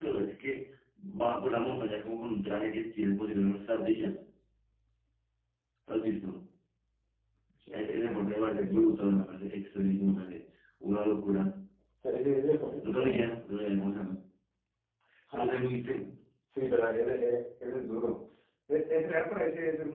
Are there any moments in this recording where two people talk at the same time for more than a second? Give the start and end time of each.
none

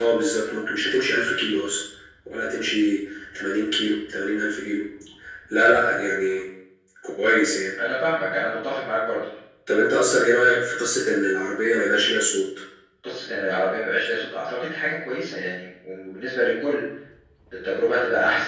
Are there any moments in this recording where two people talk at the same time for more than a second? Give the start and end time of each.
none

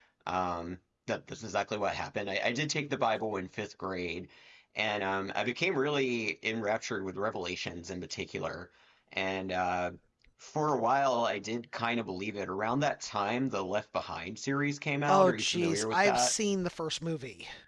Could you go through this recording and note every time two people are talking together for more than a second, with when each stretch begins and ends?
15.1-16.3

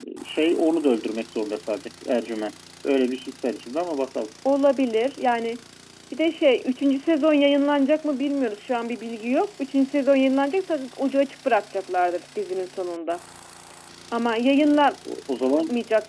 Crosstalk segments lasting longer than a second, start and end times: none

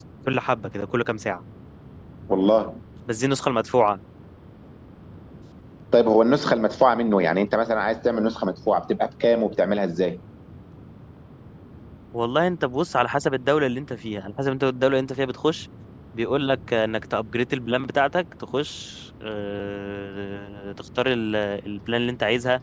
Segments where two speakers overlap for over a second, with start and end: none

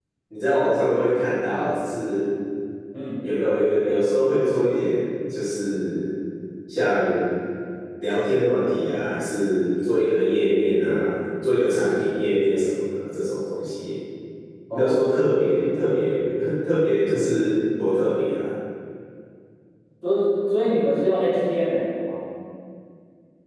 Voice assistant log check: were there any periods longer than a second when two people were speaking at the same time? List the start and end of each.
none

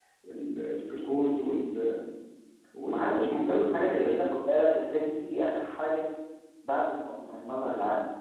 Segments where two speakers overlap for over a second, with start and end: 2.9-4.3

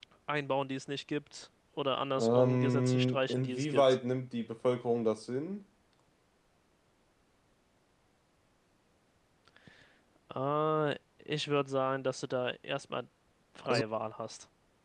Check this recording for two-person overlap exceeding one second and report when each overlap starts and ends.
2.2-4.0

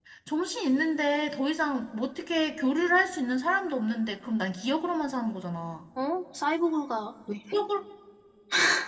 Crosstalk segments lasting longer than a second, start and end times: none

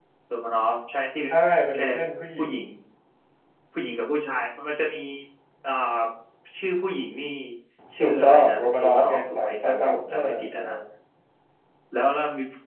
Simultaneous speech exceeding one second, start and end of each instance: 8.0-10.6

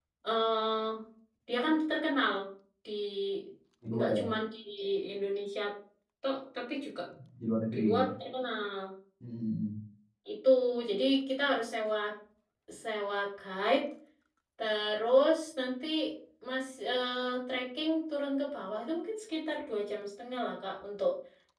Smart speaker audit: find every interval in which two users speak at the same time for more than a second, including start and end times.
none

